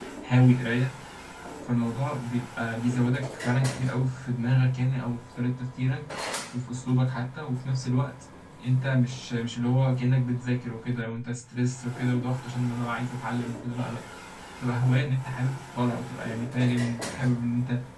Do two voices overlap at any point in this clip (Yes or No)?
No